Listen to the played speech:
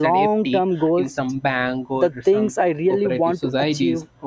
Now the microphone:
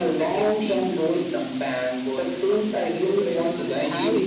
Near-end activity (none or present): present